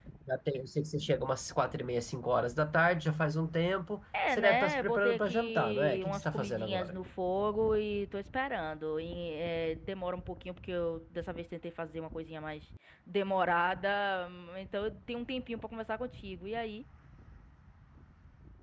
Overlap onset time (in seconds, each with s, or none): 4.1 s